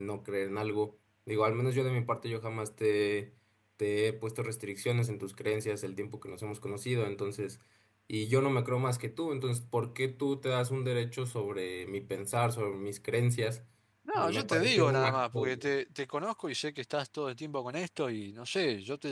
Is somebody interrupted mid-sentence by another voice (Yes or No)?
Yes